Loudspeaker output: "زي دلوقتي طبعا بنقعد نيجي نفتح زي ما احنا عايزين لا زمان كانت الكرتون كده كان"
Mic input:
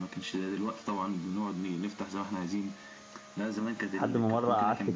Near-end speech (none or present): present